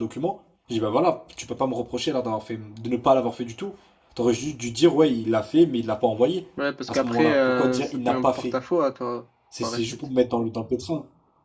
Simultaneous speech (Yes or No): Yes